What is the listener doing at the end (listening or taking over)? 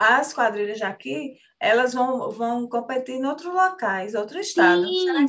taking over